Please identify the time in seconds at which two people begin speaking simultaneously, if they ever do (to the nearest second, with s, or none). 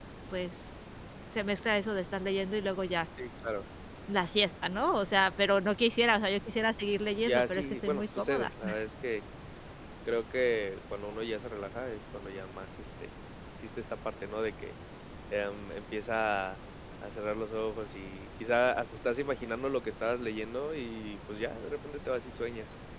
7 s